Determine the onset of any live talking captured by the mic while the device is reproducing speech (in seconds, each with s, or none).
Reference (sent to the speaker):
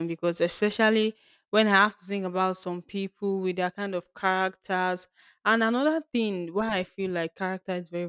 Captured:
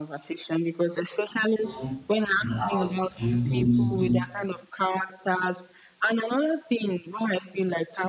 1.6 s